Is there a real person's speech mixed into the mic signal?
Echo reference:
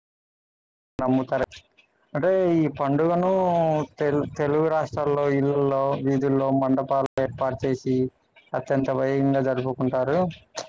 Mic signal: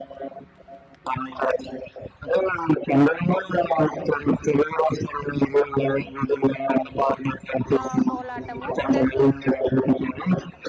Yes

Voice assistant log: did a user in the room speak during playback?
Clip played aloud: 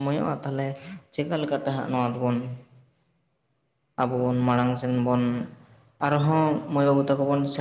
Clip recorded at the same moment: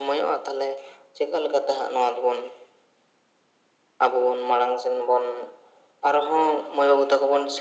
No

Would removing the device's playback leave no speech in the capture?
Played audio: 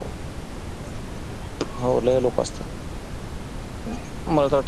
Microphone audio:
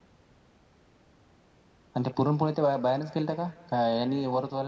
No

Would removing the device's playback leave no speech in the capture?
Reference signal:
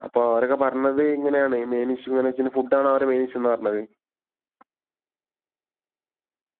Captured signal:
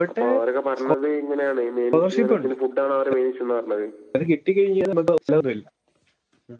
No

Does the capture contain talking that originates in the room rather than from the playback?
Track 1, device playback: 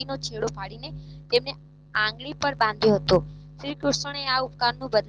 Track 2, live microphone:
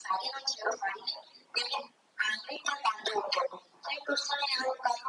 No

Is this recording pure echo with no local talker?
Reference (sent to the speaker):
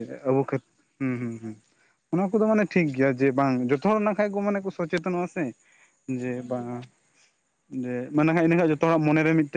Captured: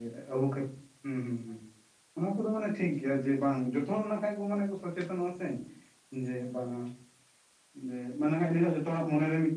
Yes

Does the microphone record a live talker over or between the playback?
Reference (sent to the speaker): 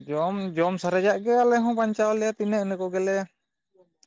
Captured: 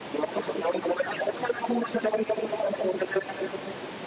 No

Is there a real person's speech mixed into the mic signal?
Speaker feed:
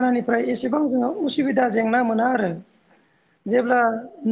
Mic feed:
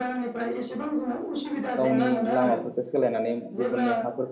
Yes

